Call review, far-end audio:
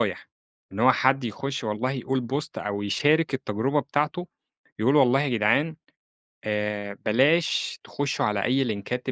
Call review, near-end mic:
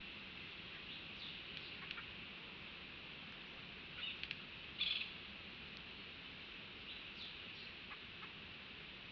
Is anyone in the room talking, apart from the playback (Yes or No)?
No